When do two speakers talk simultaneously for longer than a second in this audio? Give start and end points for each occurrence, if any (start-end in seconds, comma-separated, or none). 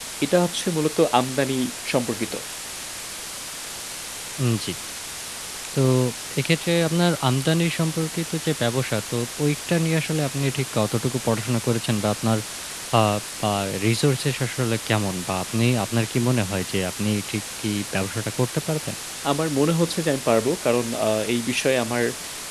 none